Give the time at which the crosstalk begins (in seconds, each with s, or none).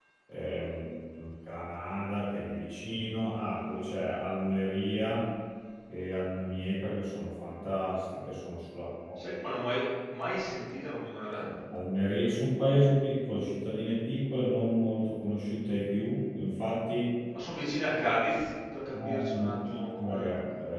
18.9 s